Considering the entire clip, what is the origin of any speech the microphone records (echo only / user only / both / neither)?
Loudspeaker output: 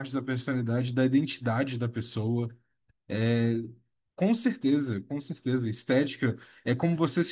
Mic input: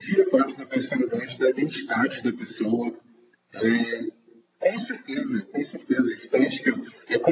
echo only